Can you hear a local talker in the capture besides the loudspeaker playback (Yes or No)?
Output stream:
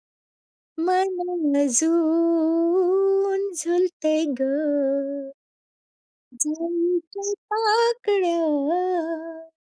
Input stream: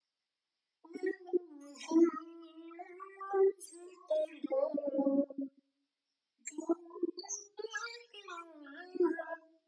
No